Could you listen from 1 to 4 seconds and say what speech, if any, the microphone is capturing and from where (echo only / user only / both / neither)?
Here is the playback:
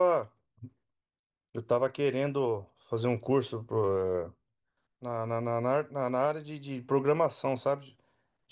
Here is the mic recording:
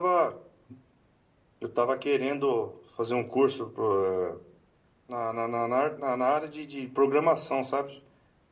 echo only